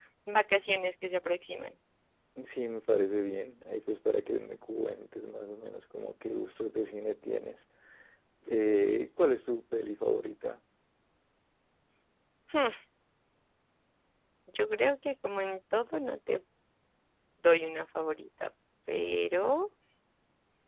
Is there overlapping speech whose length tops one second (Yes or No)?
No